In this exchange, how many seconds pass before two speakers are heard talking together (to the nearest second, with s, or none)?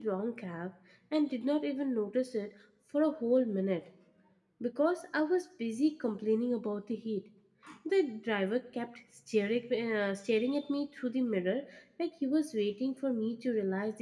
none